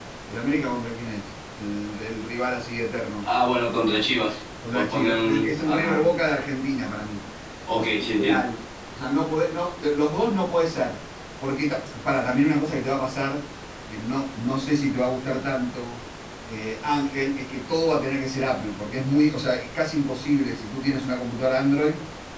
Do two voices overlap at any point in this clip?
Yes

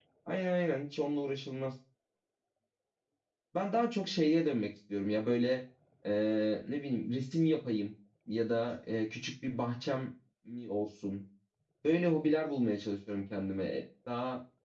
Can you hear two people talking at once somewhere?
No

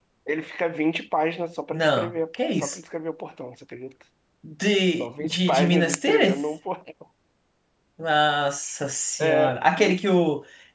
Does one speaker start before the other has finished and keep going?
Yes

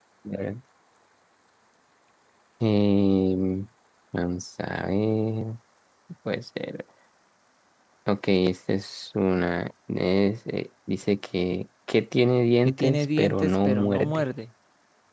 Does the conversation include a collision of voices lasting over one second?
Yes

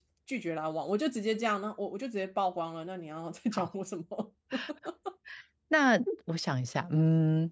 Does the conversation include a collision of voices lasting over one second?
No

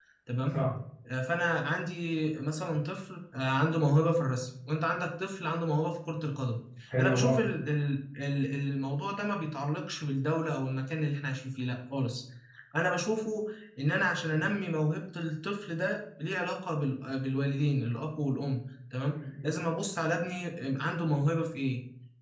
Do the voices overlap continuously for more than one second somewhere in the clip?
No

